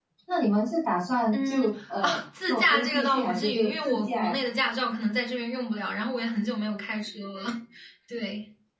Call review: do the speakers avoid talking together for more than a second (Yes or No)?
No